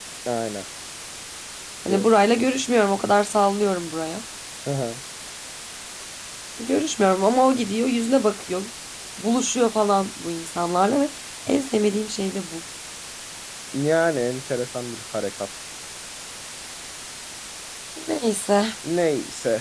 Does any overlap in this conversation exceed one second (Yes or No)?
No